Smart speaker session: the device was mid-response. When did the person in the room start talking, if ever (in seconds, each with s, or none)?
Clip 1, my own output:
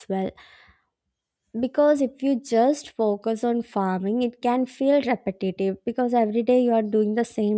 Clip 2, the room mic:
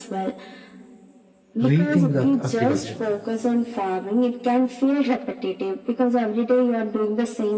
1.6 s